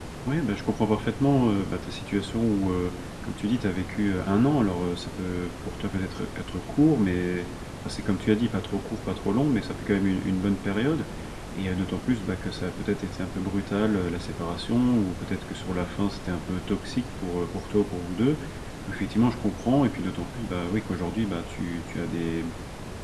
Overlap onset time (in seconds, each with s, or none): none